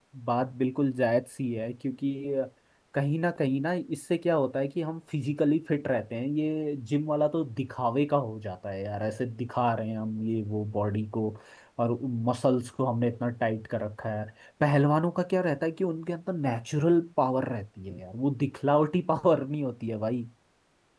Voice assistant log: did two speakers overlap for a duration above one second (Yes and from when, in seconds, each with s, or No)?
No